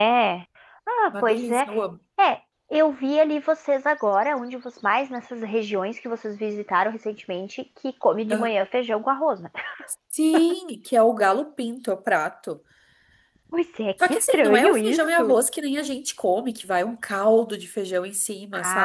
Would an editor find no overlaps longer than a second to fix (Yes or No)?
No